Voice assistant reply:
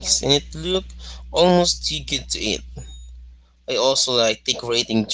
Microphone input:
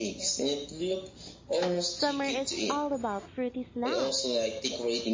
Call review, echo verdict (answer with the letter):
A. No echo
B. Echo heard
B